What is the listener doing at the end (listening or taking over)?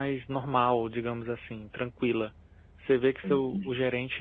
listening